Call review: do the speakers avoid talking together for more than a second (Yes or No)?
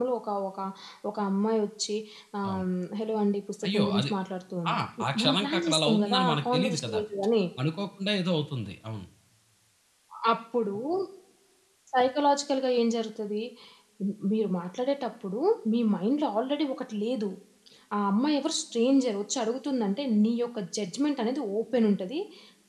No